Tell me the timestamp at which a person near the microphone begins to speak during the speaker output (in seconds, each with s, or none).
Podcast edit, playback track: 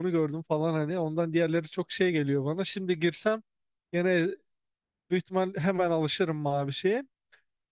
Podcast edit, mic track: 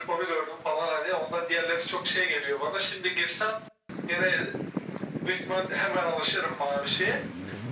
none